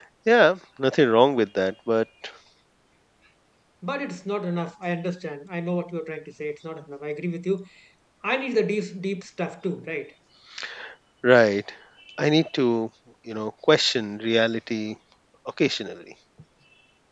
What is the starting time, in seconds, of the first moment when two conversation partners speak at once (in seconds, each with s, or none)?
none